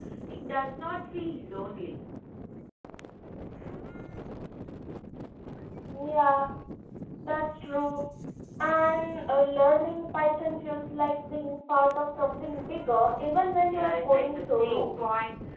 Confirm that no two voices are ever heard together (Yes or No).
No